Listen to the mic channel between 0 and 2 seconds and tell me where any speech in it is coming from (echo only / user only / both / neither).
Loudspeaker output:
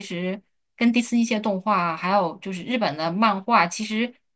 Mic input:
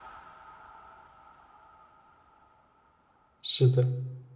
neither